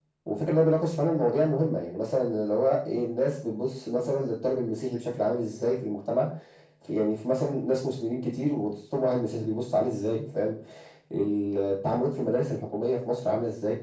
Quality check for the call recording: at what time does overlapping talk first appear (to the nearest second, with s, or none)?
none